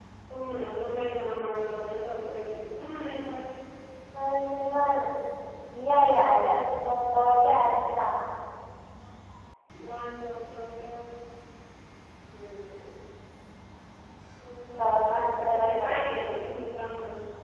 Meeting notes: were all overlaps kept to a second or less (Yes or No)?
No